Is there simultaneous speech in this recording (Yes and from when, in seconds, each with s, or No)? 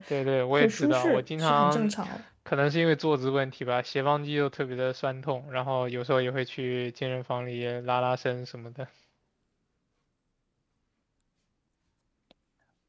Yes, from 0.6 s